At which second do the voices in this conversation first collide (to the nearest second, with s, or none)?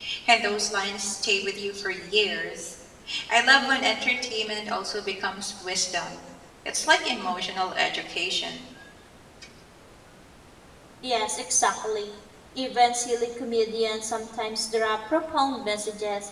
none